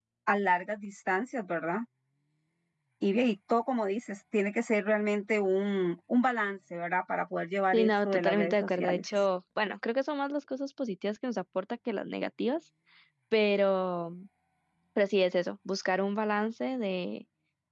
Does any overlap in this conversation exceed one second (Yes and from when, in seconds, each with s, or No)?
Yes, from 7.7 s